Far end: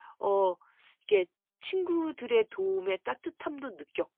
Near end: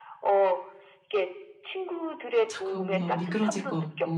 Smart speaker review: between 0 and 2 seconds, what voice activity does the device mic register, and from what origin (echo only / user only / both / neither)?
echo only